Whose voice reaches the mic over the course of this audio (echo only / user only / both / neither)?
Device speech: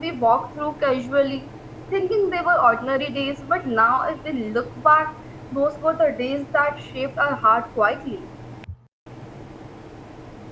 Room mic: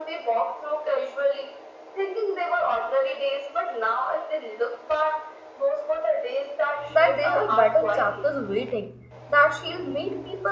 both